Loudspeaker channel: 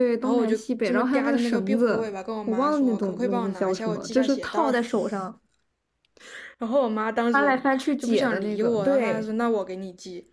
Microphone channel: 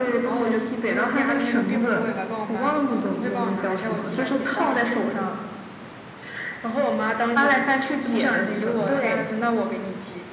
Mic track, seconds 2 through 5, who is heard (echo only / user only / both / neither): echo only